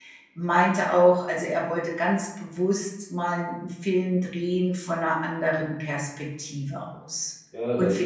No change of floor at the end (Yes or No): No